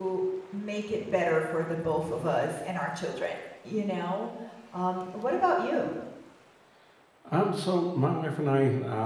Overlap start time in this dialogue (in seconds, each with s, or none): none